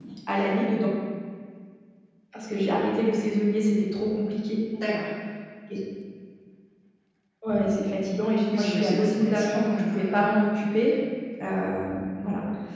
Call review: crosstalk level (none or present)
present